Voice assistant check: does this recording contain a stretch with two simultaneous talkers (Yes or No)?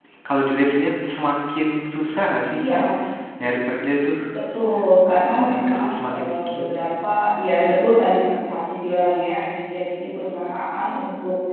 Yes